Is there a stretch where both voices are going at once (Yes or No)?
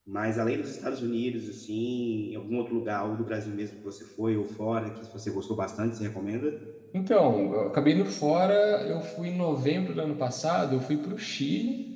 No